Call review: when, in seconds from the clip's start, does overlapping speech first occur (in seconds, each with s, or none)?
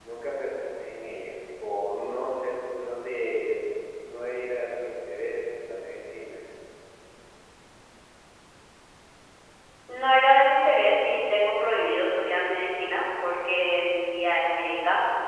none